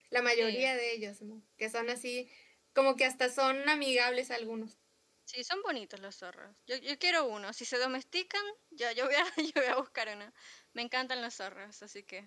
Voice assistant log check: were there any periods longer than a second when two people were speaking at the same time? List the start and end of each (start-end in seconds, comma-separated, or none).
none